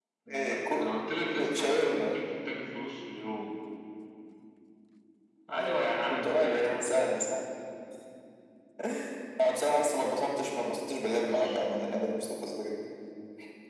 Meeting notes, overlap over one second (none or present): present